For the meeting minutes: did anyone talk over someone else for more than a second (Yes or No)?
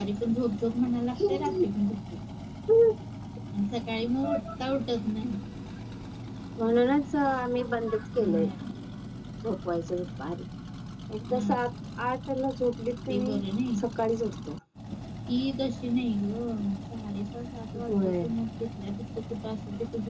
No